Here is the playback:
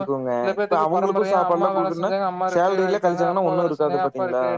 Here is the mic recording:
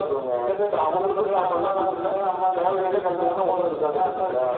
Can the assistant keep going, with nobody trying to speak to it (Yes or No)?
Yes